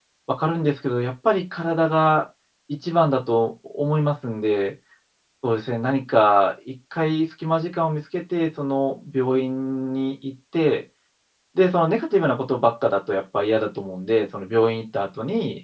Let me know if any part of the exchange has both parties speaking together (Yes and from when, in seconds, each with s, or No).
No